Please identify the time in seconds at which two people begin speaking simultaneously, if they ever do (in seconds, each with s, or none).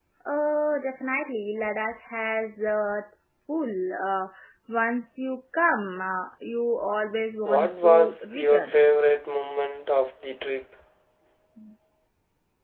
7.5 s